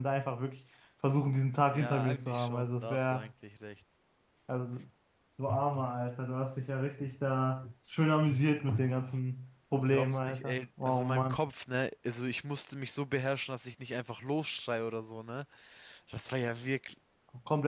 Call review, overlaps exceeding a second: present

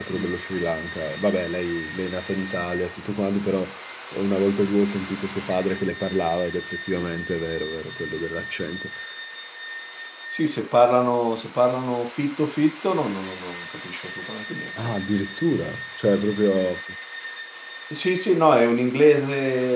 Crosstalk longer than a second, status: none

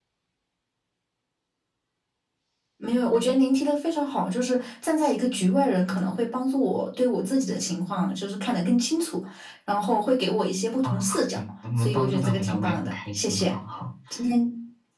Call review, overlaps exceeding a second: present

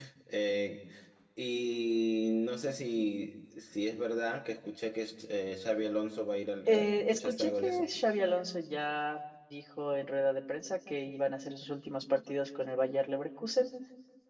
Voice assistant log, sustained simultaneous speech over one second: present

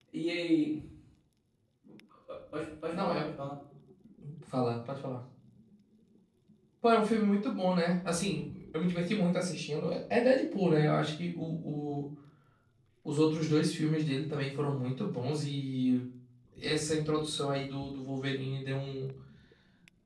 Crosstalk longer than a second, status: none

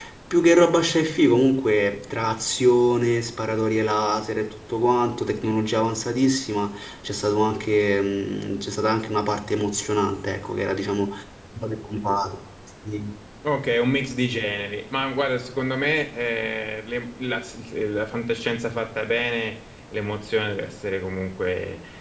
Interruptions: none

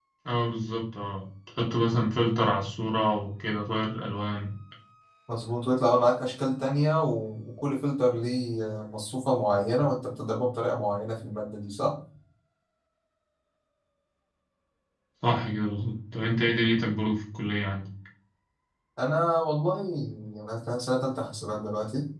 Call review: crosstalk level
none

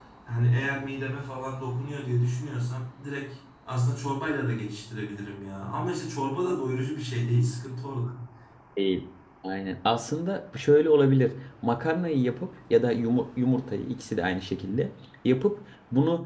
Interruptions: none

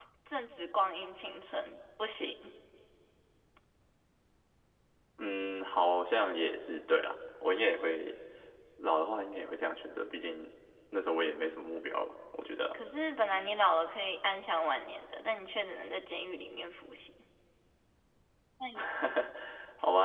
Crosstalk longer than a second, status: none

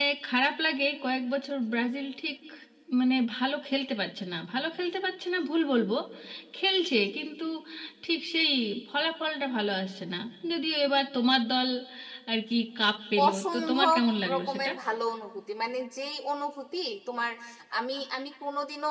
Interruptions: present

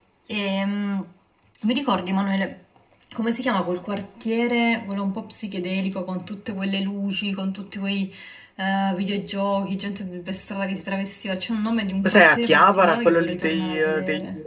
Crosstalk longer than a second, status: present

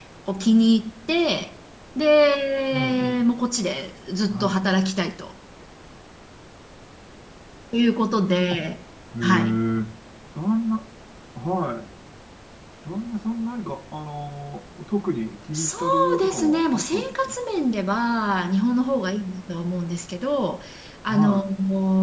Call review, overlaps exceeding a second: present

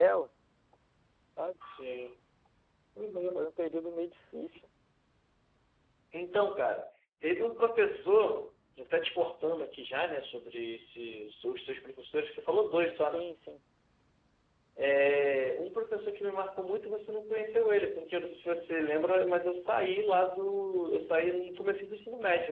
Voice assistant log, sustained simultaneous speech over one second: none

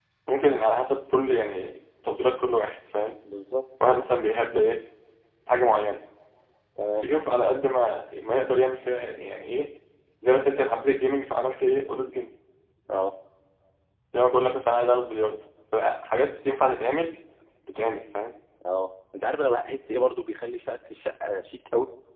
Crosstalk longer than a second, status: none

